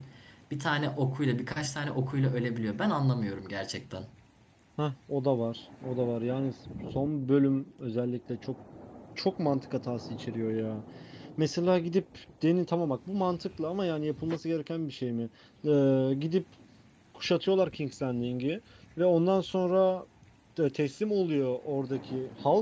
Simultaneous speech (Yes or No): No